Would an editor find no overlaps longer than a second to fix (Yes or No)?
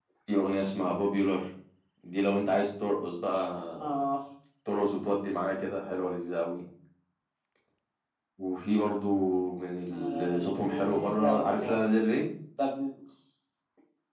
No